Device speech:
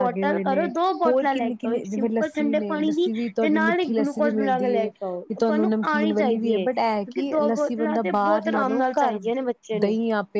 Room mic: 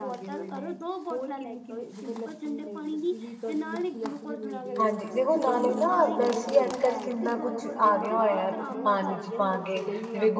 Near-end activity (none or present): present